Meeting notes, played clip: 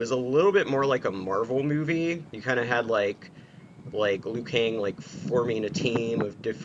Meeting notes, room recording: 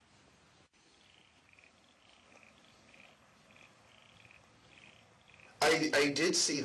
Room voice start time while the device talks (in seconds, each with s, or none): 5.6 s